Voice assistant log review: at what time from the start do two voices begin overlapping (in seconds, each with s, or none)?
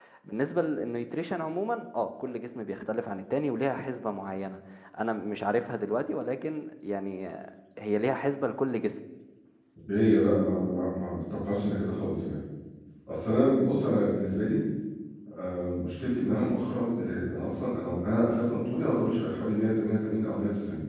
none